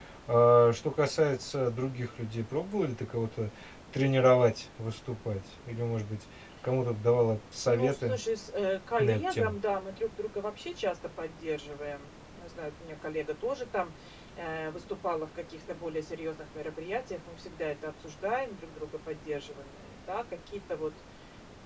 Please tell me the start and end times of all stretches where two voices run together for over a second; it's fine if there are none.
none

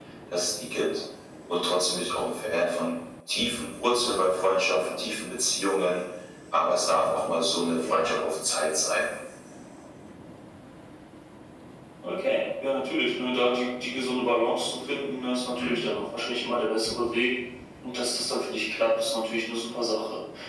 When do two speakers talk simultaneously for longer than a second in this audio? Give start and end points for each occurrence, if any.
none

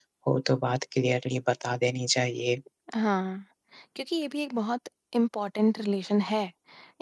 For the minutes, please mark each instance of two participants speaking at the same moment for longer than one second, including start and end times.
none

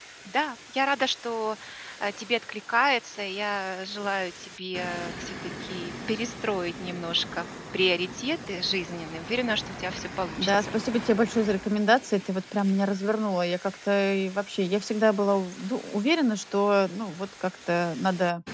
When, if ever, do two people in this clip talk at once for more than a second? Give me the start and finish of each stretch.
none

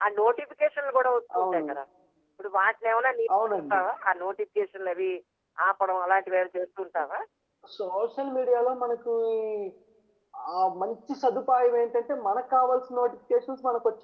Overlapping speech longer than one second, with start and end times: none

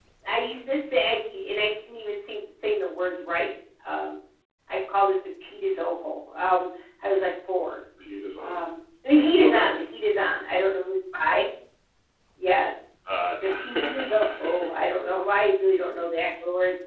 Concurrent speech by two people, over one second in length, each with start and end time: 13.4-14.7

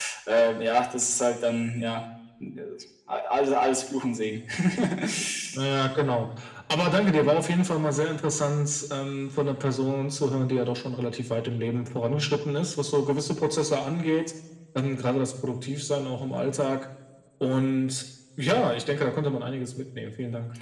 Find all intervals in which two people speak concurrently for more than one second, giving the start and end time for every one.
none

